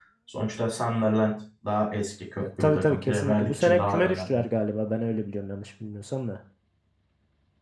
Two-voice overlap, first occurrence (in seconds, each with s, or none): 2.4 s